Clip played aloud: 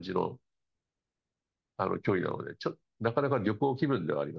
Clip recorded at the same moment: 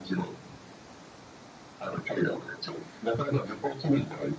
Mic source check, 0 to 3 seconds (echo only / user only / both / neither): echo only